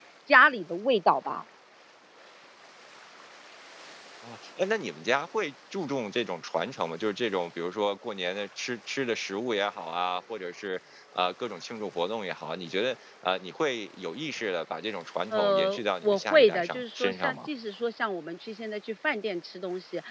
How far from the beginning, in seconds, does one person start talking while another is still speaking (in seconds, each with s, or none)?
15.3 s